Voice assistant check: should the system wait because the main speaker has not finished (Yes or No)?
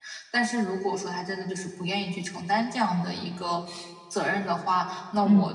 Yes